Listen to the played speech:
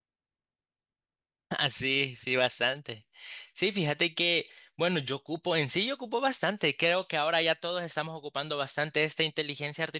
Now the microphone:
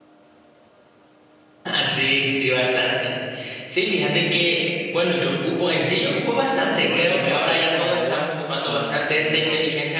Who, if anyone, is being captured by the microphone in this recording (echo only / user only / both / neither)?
both